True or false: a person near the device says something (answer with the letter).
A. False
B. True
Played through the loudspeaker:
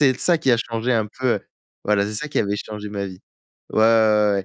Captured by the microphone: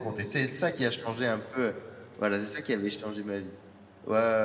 A